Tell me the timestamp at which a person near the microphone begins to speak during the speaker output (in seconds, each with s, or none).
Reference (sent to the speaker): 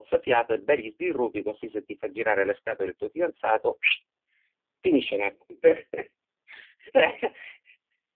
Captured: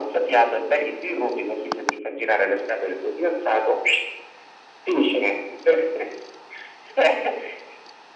none